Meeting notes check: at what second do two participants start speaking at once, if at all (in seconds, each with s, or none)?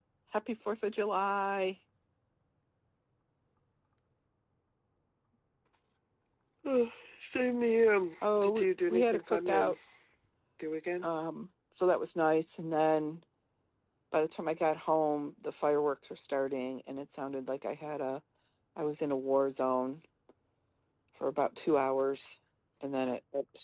8.2 s